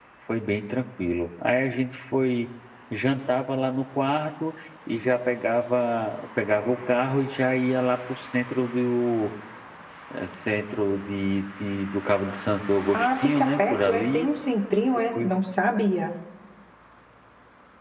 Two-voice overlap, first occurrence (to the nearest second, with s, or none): 13 s